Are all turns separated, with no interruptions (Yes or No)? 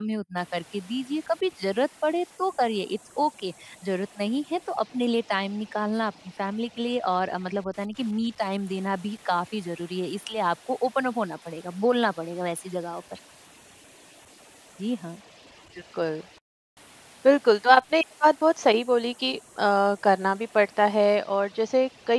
Yes